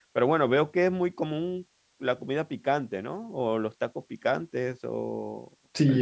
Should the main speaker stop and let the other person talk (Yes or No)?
Yes